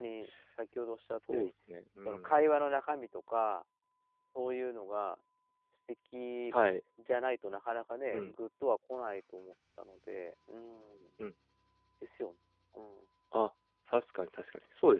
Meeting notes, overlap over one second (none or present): none